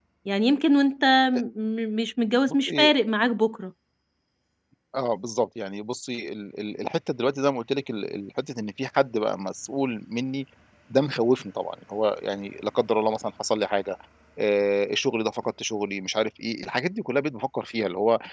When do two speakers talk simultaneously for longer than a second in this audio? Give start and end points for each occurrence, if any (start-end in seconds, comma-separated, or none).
none